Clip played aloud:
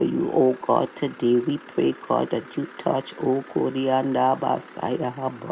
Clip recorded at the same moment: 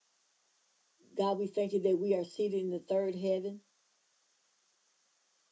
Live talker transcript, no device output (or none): God, we thank you that we are seated in the third heaven